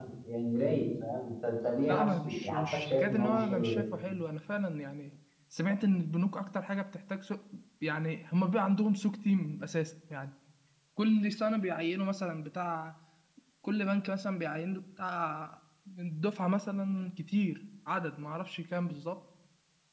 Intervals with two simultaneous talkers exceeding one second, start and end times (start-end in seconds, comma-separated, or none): 1.9-3.8